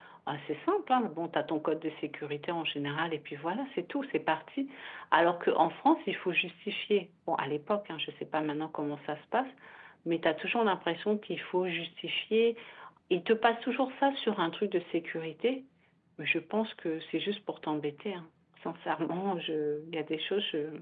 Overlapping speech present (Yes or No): No